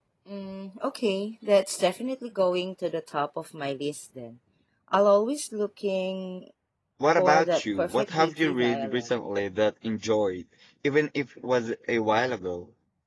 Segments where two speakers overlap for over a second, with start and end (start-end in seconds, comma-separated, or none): 7.2-9.1